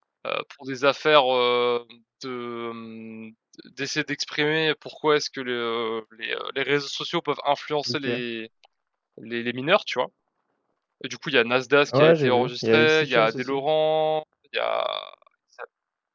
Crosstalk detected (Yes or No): Yes